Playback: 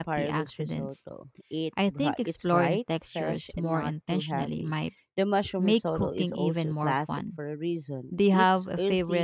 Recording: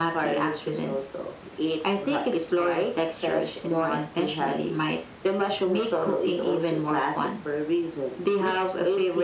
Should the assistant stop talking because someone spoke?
No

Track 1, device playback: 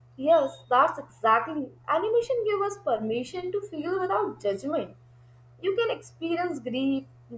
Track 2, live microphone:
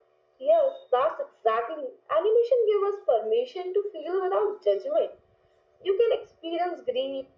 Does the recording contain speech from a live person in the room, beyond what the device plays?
No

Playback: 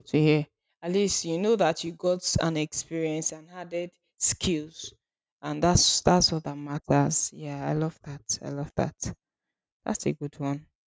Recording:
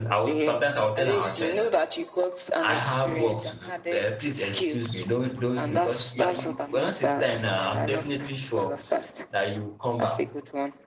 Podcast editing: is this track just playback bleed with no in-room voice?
No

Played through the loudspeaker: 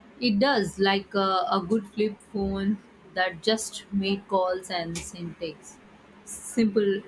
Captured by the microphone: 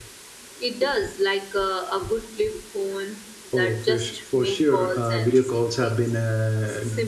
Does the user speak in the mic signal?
Yes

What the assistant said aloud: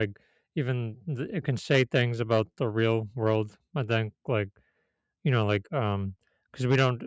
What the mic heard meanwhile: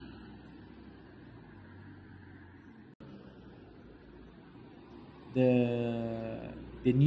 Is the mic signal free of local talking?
No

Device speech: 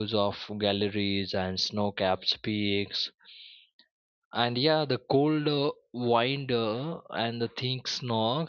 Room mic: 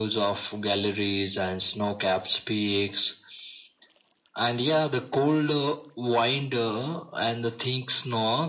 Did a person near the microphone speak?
No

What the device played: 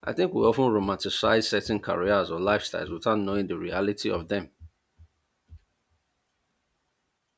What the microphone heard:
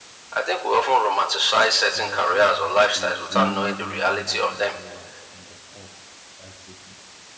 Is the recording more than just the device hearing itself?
Yes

